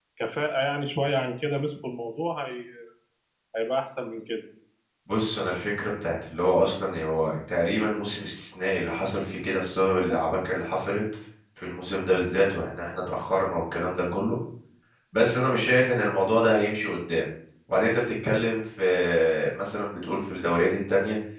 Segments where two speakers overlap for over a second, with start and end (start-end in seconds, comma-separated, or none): none